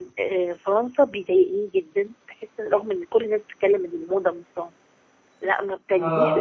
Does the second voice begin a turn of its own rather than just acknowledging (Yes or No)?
No